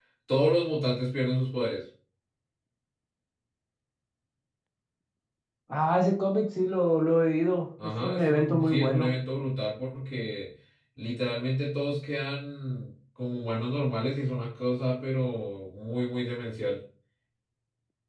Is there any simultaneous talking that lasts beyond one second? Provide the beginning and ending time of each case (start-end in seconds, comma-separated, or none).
7.8-9.1